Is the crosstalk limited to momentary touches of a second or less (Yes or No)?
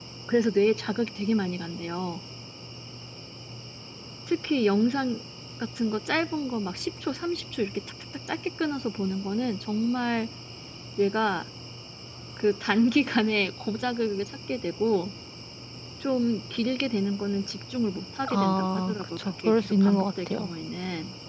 No